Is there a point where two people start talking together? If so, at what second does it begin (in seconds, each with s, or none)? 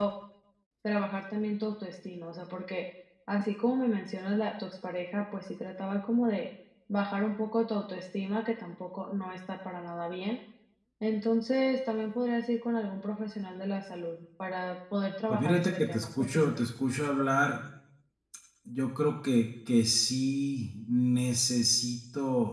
15.3 s